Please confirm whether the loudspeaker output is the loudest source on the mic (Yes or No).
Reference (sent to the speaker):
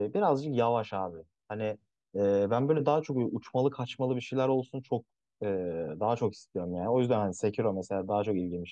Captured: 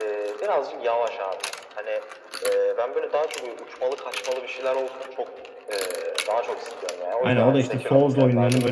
No